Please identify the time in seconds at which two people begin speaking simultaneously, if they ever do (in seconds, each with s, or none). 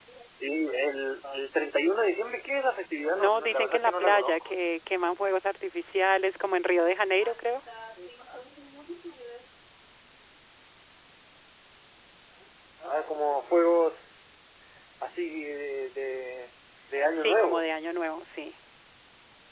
3.1 s